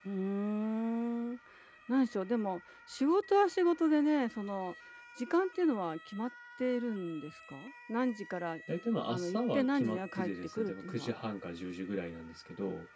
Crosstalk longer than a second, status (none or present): present